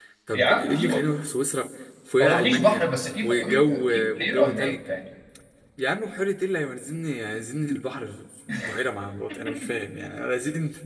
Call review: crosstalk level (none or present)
present